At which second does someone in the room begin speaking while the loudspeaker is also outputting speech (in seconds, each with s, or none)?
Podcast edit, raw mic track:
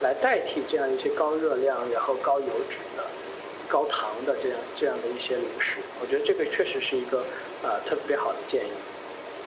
none